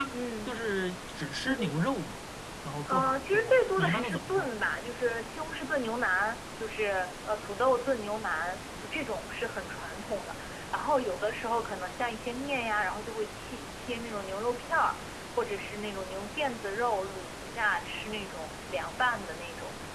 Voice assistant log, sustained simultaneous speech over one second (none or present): present